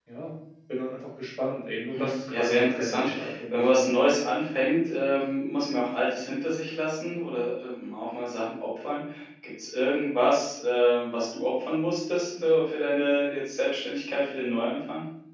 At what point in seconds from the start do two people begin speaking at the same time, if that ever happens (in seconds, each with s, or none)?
1.9 s